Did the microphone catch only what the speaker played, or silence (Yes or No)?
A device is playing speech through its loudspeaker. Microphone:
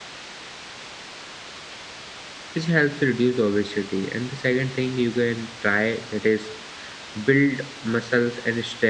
No